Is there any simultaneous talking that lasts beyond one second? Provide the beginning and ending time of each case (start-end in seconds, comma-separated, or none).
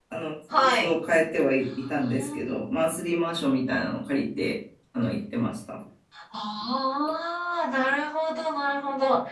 none